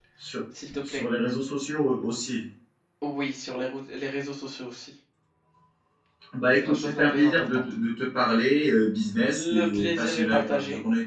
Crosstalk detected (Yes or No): Yes